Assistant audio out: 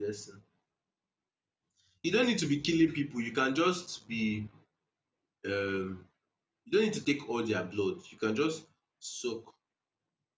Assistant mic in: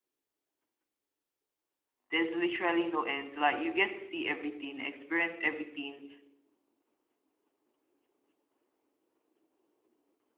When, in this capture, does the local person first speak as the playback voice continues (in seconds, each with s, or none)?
2.1 s